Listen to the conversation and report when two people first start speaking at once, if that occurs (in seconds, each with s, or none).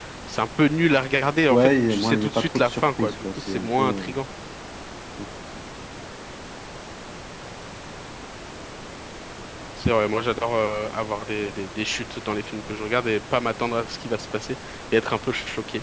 1.5 s